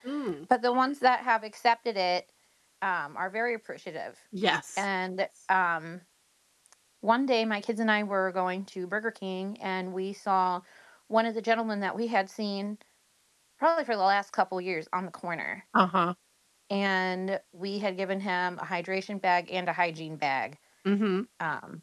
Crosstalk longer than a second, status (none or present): none